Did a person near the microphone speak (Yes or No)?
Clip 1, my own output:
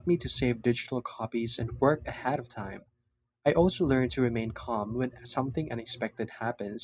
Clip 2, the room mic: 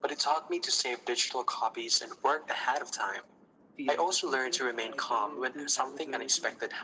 Yes